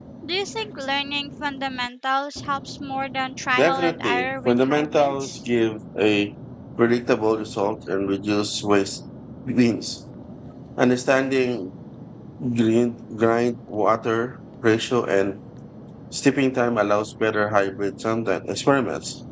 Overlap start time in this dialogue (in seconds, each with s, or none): 3.6 s